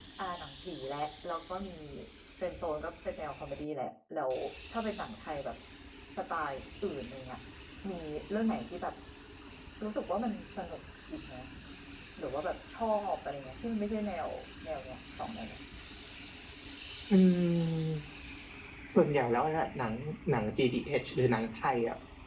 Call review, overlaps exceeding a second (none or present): none